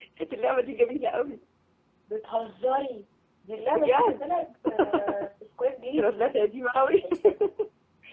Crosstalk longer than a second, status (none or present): none